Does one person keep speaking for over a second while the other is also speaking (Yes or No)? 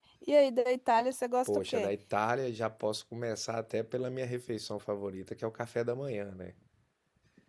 No